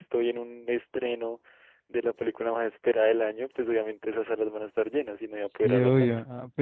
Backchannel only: No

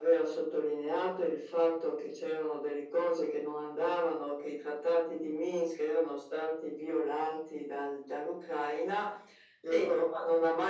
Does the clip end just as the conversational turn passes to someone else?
No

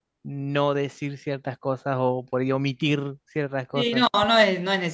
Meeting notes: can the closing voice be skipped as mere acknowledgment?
No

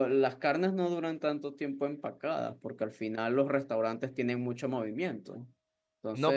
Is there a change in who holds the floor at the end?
Yes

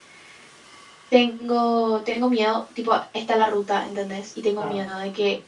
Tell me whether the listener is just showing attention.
Yes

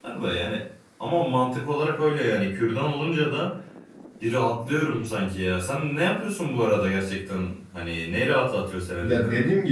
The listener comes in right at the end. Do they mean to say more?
Yes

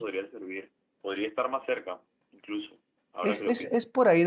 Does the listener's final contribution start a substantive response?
Yes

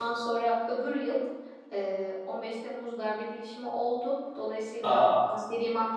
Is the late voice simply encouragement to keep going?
Yes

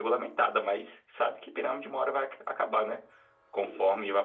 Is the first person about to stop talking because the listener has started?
No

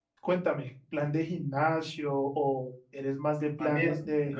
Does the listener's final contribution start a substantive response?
Yes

